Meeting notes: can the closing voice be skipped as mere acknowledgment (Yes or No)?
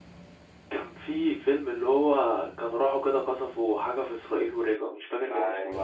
No